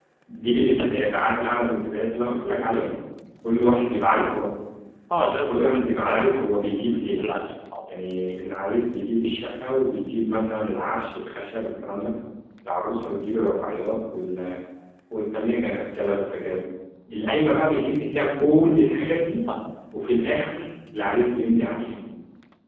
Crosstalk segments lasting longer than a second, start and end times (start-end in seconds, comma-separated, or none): 5.2-6.4